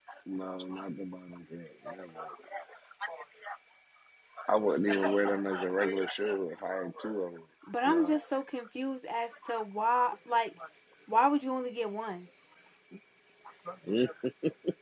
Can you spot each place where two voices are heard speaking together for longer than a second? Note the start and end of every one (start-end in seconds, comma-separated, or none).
none